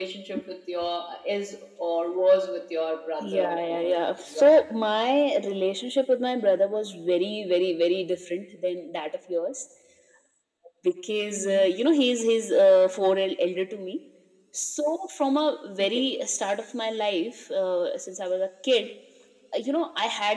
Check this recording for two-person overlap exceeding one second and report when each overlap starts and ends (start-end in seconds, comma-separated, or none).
3.2-4.9